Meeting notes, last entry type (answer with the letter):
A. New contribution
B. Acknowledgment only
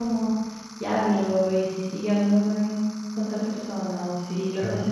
B